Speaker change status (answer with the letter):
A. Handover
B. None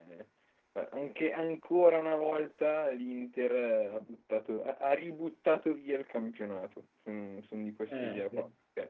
B